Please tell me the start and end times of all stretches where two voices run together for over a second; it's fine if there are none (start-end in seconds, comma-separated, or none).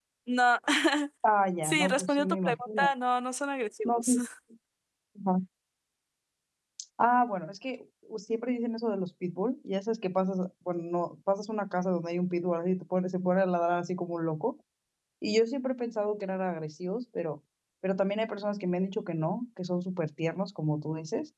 1.6-2.9